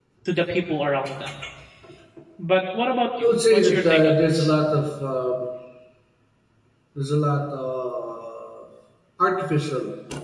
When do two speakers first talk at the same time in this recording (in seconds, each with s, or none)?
3.2 s